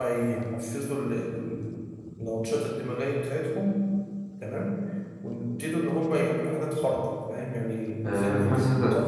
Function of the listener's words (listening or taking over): taking over